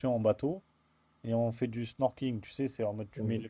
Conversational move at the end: listening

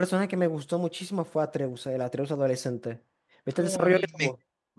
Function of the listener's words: taking over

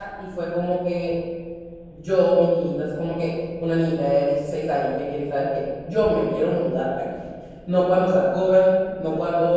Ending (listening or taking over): listening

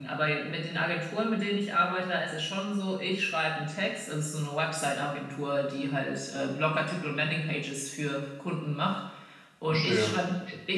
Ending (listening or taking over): listening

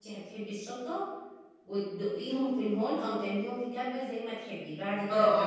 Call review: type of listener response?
taking over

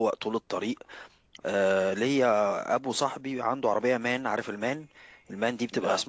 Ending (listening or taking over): listening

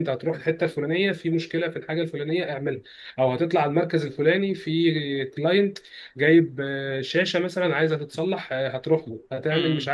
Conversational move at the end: listening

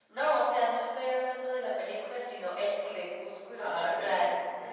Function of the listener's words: taking over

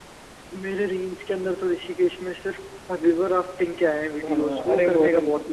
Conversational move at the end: taking over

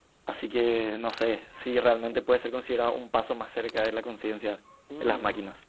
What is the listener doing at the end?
taking over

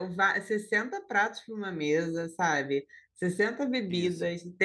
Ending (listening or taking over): listening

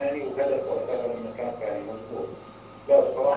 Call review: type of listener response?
listening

